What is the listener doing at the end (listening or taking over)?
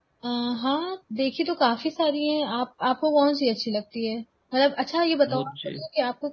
listening